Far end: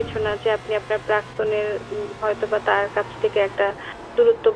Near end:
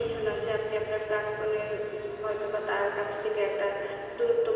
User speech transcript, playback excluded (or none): none